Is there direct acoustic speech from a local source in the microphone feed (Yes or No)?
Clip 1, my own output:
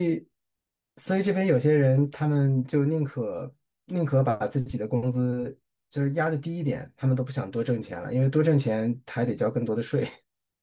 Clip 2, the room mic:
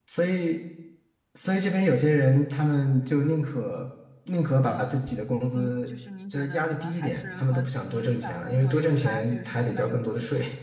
Yes